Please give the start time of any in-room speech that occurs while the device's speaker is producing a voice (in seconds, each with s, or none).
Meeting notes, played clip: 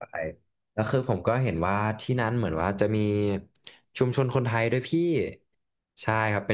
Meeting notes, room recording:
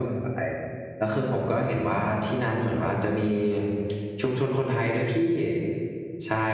none